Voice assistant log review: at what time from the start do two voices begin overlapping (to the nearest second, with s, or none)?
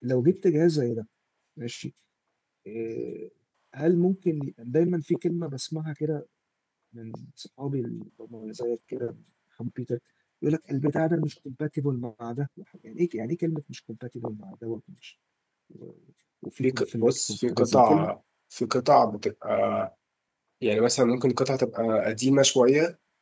17 s